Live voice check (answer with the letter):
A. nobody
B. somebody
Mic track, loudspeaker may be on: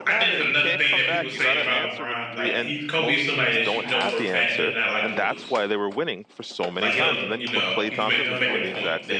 B